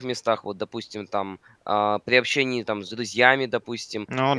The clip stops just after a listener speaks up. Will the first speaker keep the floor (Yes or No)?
Yes